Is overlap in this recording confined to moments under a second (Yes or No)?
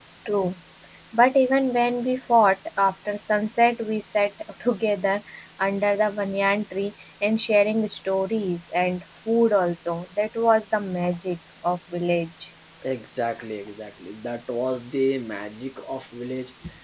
Yes